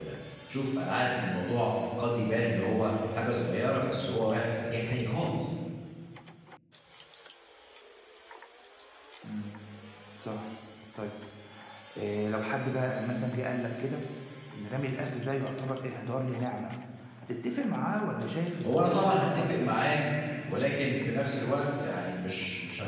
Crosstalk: present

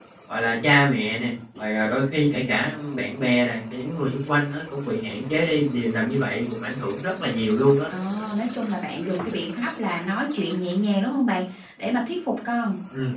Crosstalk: none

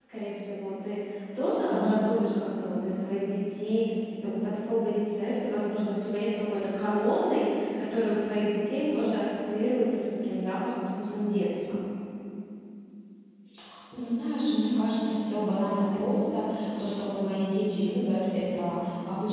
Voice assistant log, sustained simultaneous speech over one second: none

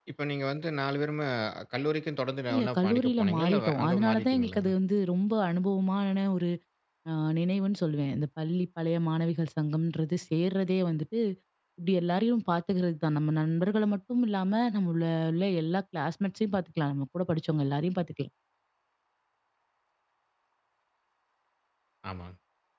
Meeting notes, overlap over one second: present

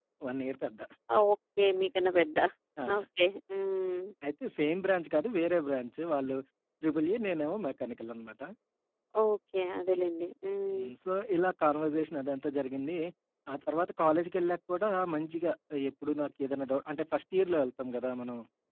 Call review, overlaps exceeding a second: none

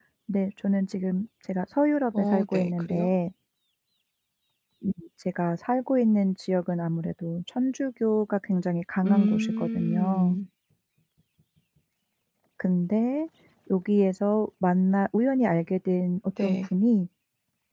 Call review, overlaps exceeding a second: present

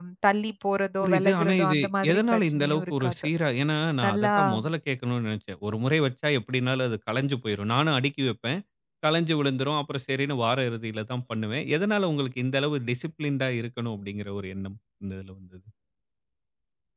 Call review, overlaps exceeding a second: present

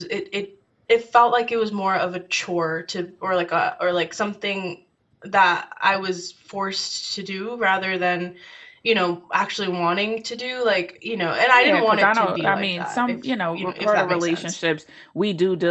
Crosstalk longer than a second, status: present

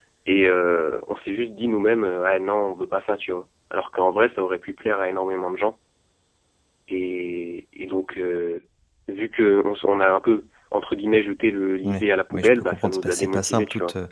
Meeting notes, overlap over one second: present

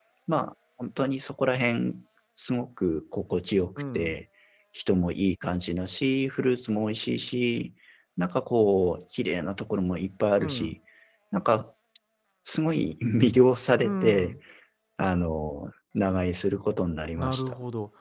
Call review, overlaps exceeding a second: none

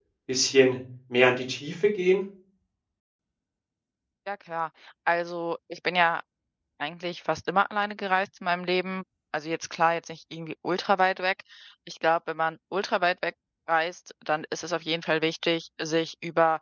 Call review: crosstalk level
none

